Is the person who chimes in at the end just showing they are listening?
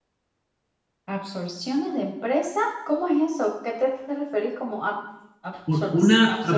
No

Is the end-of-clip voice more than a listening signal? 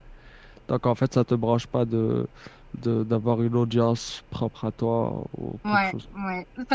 Yes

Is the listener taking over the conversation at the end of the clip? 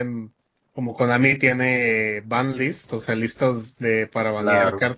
No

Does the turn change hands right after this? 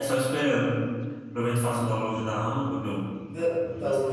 Yes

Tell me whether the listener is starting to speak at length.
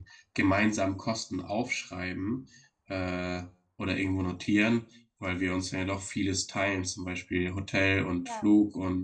No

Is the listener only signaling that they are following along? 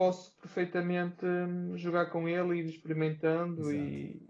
No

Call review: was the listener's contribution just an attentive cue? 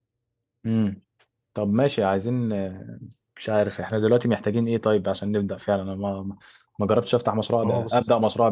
Yes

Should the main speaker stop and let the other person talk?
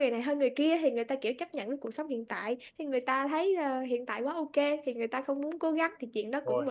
No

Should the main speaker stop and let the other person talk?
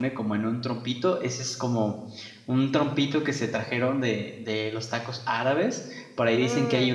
No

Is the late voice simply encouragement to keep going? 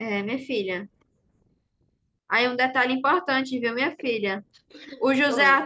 Yes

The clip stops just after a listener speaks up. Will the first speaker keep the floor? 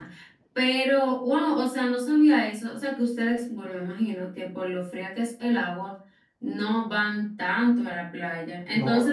Yes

